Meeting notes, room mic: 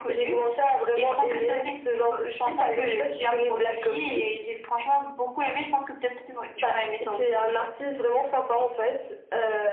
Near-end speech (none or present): none